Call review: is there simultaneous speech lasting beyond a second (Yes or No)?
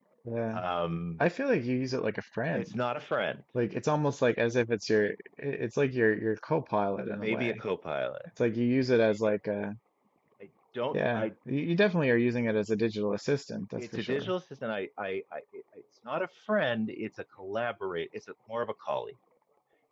No